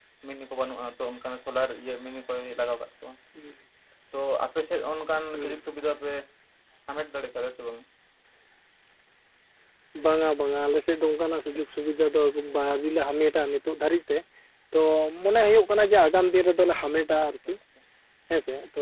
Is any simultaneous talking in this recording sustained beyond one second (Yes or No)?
No